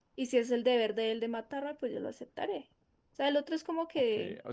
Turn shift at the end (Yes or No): Yes